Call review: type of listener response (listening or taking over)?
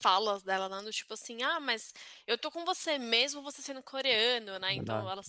listening